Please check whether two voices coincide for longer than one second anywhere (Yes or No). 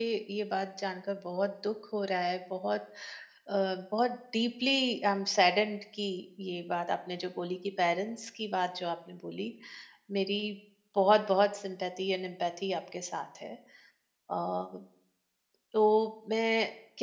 No